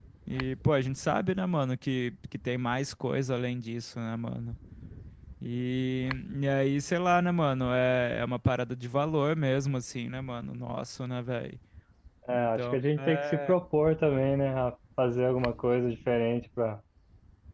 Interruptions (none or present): present